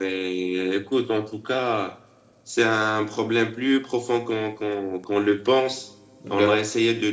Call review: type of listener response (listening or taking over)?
listening